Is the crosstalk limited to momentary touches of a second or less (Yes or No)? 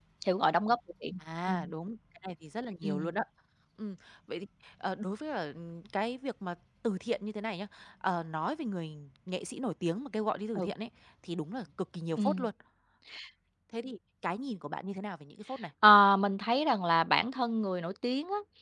Yes